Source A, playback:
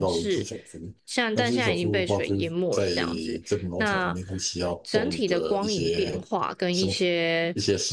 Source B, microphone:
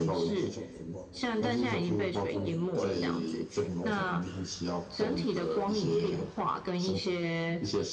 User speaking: Yes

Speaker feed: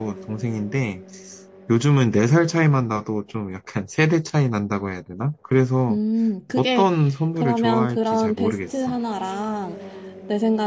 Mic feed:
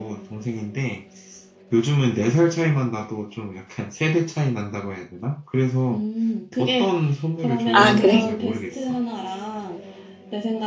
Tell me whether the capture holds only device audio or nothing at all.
No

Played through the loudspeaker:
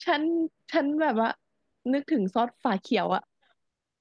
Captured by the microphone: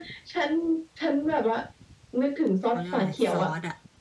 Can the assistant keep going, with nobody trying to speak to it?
No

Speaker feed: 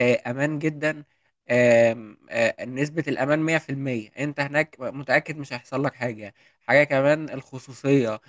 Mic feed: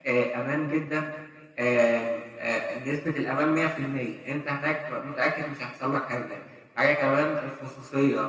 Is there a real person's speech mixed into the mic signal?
No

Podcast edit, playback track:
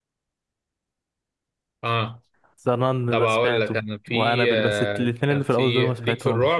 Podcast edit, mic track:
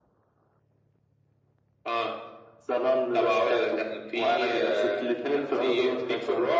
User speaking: No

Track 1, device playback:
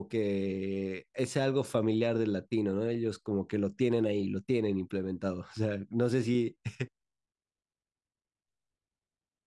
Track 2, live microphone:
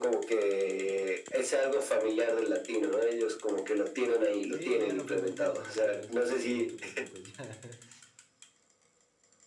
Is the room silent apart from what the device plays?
No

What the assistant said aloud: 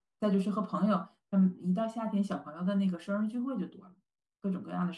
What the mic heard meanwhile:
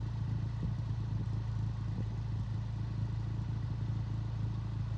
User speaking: No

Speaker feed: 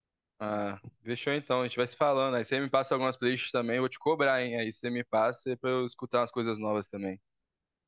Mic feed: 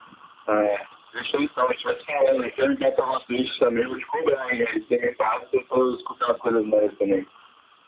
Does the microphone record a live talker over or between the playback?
No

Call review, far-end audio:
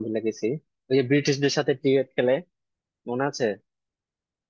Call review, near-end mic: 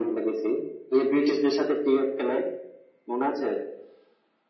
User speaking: No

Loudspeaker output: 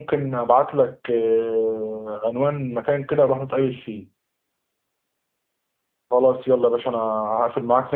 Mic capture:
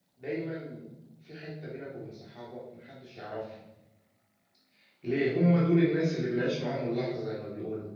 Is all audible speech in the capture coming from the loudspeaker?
No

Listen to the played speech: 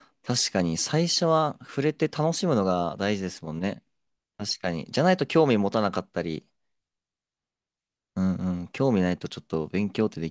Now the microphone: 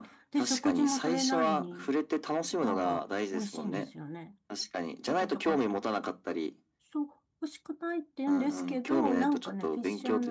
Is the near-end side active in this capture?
Yes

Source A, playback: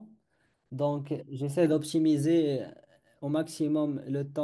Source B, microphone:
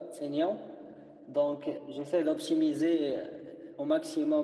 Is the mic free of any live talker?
Yes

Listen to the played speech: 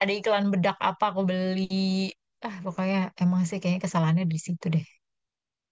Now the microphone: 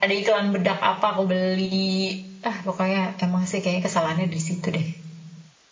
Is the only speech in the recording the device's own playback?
Yes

